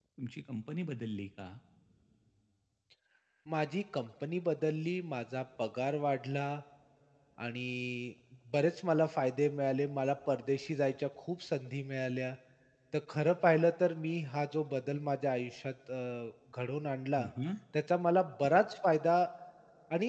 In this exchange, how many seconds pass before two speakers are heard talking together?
none

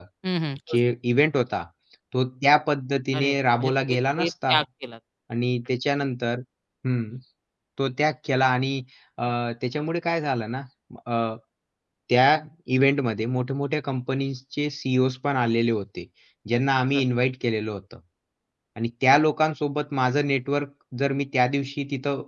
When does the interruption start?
3.1 s

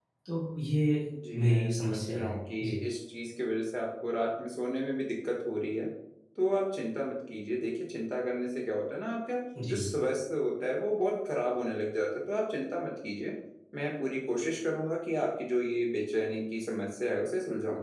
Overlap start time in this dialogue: 1.1 s

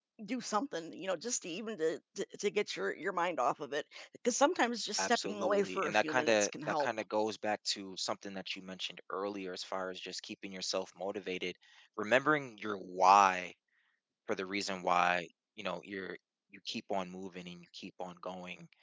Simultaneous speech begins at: 5.0 s

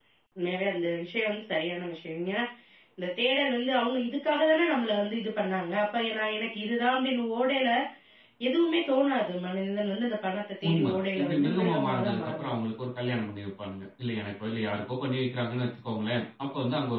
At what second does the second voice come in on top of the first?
10.6 s

